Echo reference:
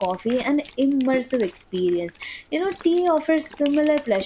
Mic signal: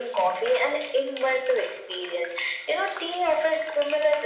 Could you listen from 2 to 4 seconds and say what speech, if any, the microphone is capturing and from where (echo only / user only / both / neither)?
echo only